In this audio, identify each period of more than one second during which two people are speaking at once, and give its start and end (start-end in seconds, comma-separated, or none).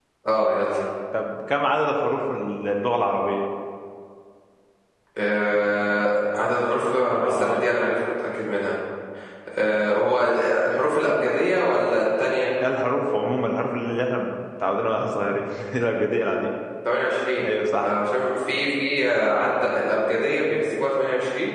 none